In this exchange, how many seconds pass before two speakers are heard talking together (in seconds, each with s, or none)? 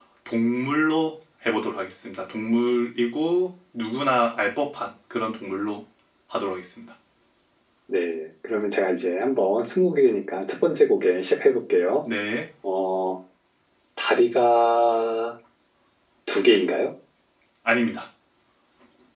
none